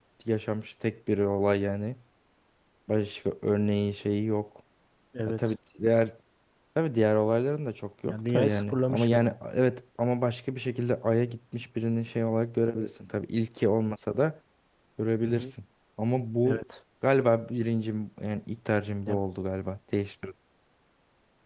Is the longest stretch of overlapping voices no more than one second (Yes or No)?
No